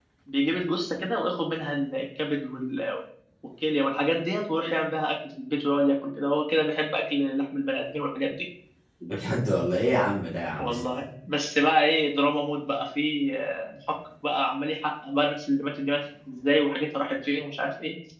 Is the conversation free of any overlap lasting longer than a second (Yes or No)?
Yes